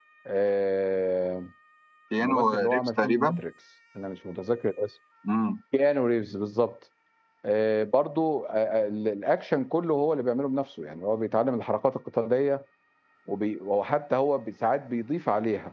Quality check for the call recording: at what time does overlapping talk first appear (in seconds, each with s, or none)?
2.2 s